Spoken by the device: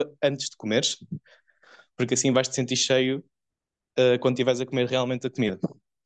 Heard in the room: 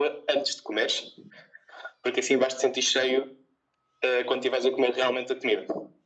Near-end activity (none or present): none